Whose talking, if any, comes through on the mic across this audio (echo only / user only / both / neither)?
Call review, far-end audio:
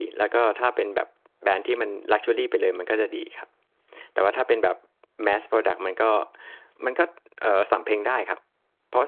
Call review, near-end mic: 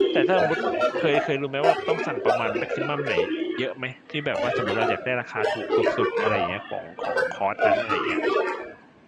both